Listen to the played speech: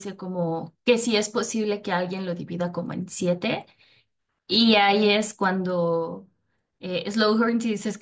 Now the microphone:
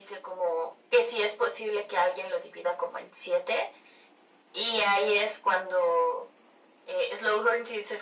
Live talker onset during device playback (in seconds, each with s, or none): none